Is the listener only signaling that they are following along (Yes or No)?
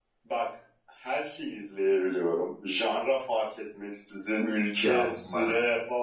Yes